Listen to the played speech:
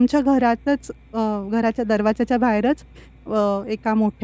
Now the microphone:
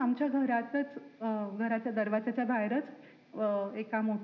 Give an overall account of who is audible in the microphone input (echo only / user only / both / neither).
echo only